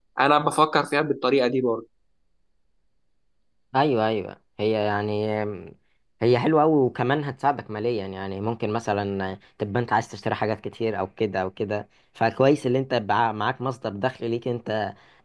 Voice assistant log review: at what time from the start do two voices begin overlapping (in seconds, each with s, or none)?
none